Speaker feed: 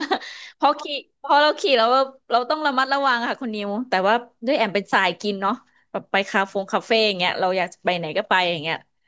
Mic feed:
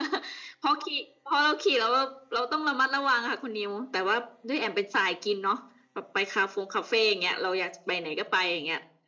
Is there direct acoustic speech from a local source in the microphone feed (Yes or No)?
No